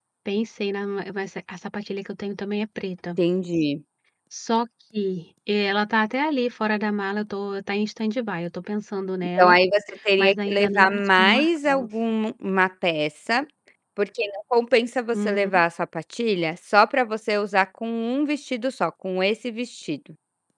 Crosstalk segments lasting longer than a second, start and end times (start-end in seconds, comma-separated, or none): 10.2-11.9